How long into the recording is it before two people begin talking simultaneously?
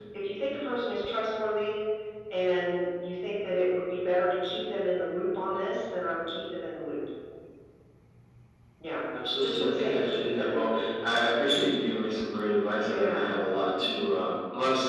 9.4 s

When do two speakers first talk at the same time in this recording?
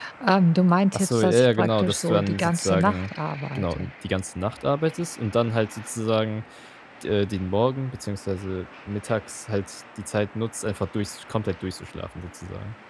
0.9 s

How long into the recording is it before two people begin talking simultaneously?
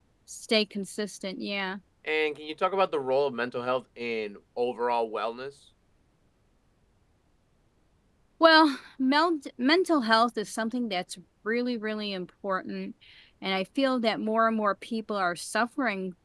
none

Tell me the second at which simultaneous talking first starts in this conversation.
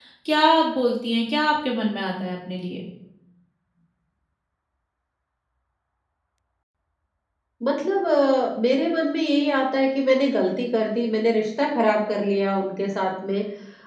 none

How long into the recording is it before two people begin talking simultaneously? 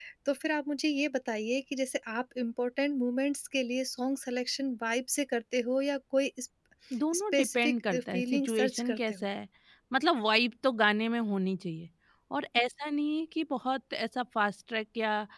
7.3 s

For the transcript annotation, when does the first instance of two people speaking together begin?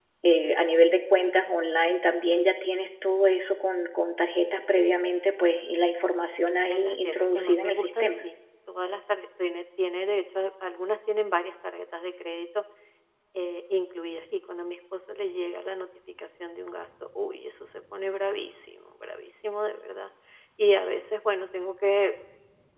6.7 s

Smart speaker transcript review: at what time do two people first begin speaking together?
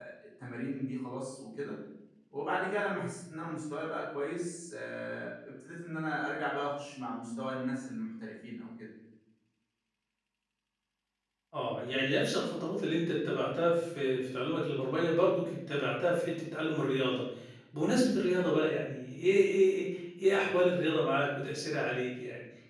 none

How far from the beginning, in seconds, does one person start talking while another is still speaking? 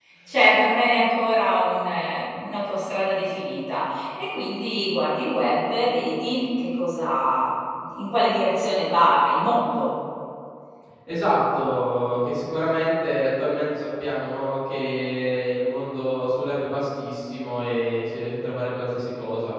none

